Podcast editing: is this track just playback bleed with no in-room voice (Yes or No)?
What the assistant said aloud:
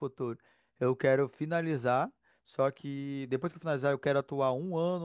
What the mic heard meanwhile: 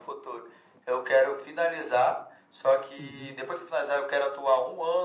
No